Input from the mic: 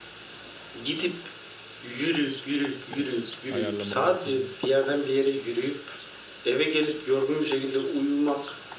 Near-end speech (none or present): present